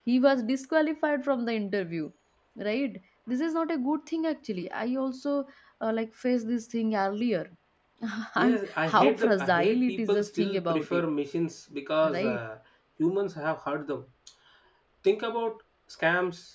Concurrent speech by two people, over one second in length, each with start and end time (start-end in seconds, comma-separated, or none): 8.4-11.0